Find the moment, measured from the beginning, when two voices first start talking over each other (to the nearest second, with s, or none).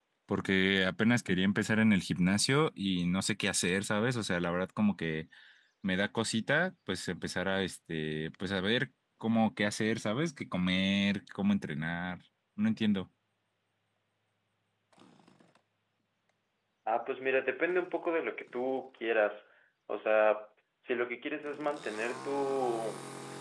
none